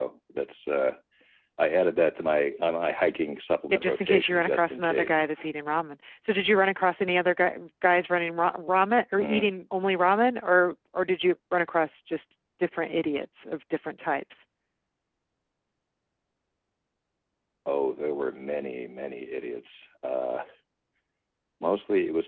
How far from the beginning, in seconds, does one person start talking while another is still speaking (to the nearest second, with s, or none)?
4 s